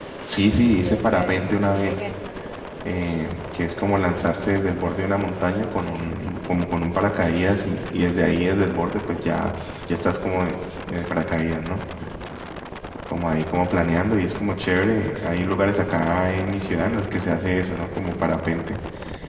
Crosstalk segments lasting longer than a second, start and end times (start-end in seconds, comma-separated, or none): 0.8-2.0